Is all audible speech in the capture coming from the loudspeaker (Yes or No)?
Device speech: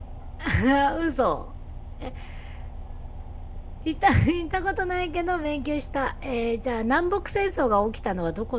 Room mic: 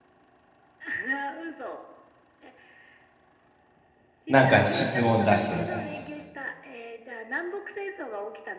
No